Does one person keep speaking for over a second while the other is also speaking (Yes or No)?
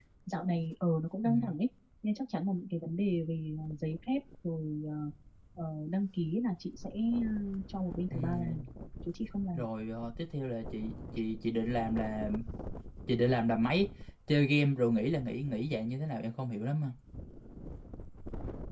No